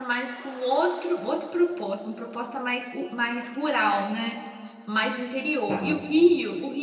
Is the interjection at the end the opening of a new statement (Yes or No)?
No